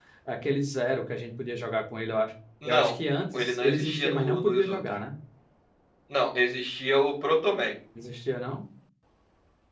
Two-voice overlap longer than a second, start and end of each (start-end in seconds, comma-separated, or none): 3.3-4.8